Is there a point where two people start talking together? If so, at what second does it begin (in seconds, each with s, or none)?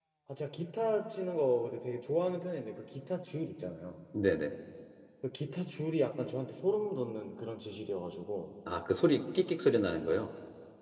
none